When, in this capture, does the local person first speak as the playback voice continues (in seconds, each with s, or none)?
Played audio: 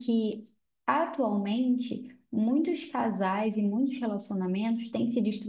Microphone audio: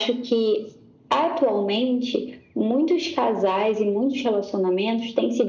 none